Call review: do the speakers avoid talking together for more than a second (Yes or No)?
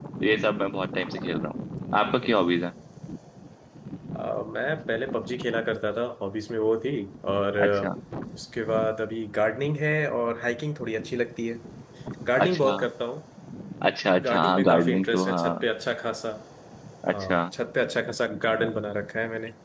No